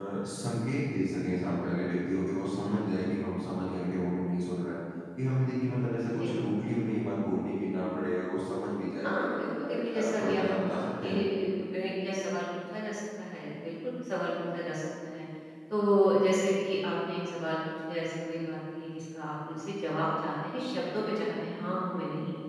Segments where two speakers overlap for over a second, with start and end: 9.0-11.1

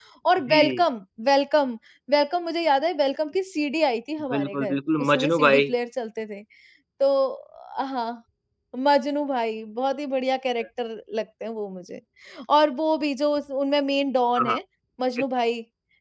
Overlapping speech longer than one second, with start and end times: 4.3-5.7

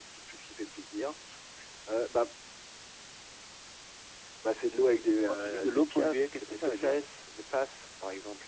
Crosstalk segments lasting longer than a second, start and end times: 5.3-7.0

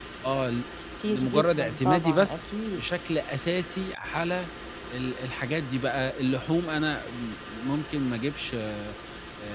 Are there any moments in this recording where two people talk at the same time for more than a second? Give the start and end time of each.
1.1-2.8

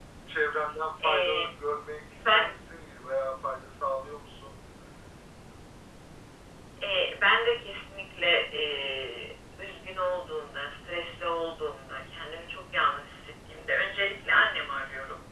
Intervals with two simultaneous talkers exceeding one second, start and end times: none

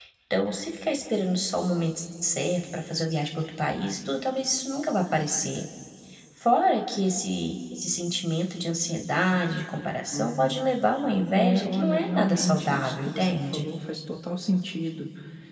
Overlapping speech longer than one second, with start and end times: 11.3-13.7

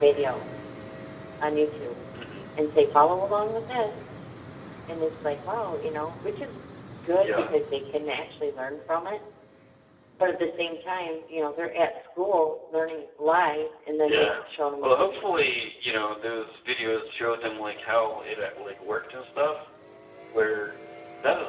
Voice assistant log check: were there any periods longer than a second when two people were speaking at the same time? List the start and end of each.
none

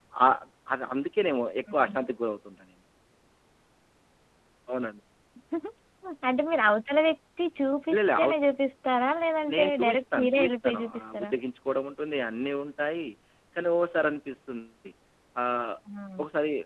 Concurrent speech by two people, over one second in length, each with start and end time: 9.5-11.3

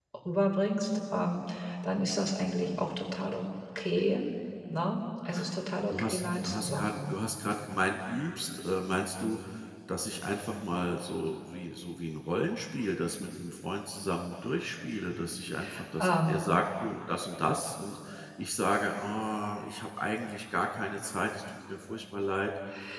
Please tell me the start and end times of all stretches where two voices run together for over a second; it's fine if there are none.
5.9-7.2

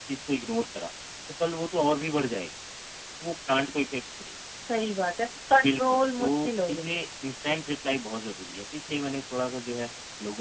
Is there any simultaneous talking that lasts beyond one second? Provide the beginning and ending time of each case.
5.6-7.0

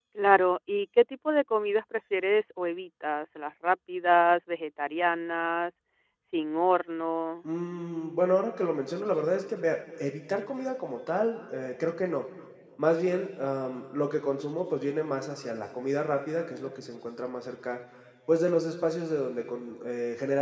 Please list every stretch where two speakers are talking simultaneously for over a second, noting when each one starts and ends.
none

